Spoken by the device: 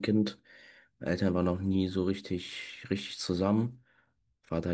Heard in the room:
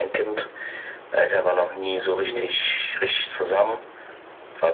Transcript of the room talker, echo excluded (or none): Hast du,